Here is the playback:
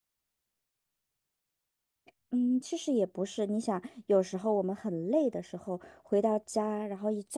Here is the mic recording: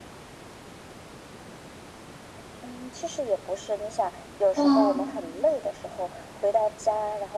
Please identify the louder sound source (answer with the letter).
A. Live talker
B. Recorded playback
A